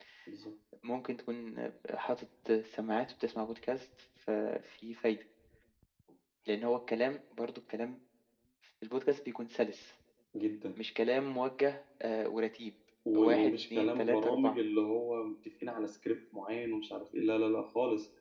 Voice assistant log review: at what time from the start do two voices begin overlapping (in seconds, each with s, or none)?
13.2 s